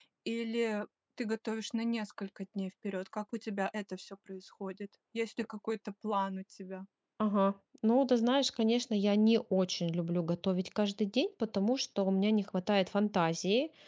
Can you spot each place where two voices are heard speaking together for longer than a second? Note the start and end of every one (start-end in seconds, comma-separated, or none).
none